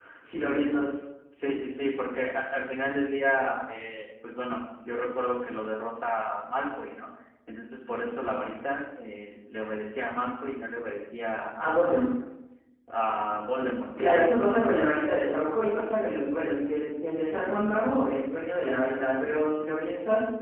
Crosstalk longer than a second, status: none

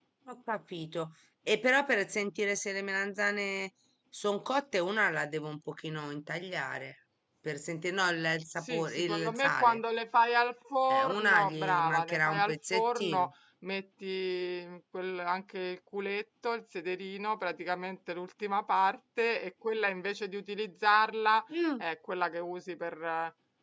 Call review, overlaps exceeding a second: present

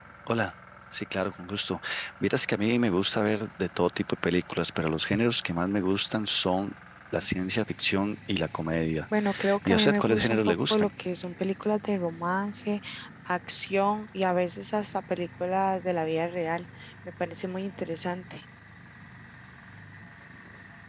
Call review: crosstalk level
present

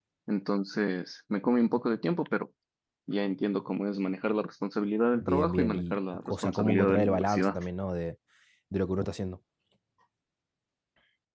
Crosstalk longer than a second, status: present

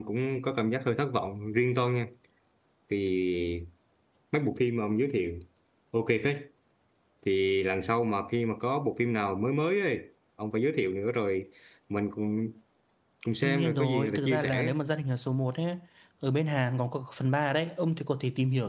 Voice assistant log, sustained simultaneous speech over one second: present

